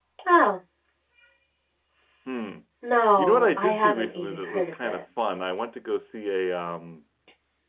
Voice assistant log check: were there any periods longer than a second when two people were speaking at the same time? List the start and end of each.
3.2-5.0

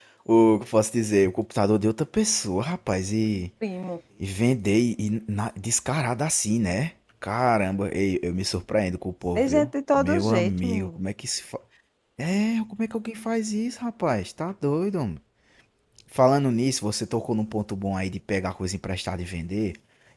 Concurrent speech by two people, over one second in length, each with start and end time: 9.4-11.0

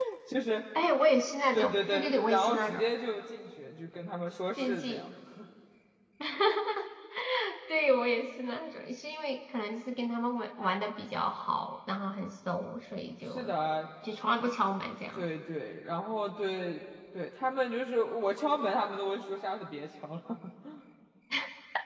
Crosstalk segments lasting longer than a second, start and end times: 1.6-2.9

